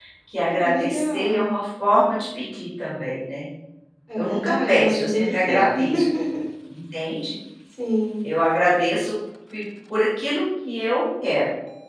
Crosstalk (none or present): present